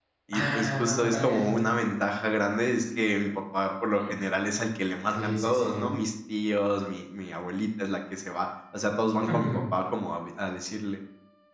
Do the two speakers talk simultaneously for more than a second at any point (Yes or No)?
Yes